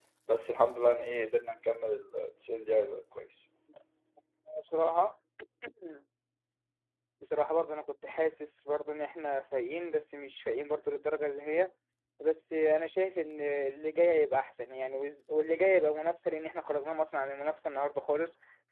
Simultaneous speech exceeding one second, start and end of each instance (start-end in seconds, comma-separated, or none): none